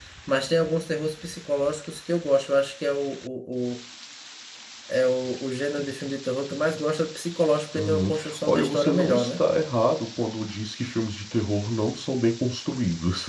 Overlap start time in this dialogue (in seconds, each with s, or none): 7.8 s